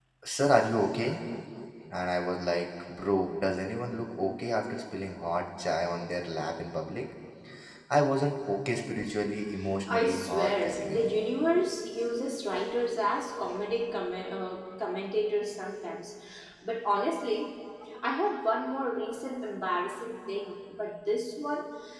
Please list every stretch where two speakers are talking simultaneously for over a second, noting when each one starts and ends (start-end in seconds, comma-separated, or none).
9.9-11.1